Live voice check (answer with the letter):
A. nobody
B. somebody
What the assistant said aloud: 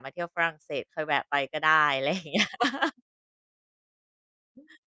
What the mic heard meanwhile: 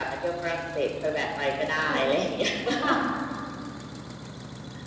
B